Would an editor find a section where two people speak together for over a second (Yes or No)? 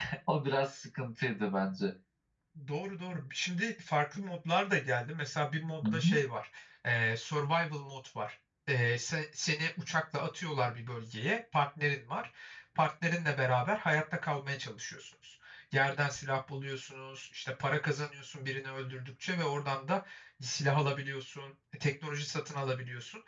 No